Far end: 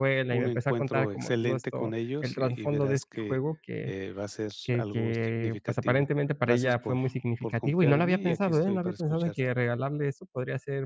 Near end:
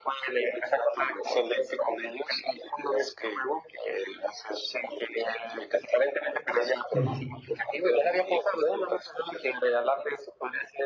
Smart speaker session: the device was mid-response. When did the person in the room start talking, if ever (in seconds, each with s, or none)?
6.9 s